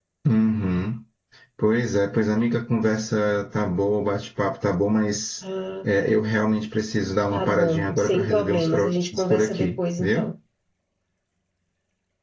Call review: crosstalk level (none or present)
present